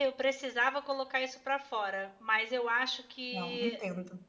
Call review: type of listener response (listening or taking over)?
listening